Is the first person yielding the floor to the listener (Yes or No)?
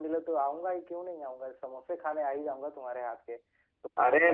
No